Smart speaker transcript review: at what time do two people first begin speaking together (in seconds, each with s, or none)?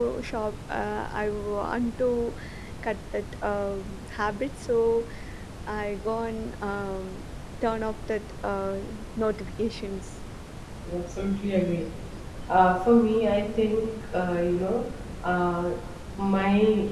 none